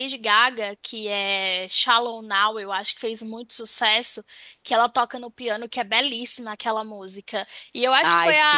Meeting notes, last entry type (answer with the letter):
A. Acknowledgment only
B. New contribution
A